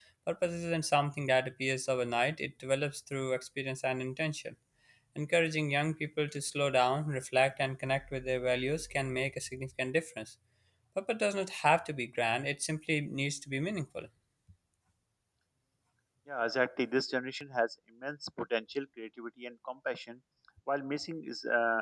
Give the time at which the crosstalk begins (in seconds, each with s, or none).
none